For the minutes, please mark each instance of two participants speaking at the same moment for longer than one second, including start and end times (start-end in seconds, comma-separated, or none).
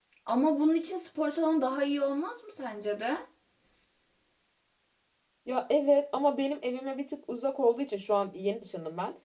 none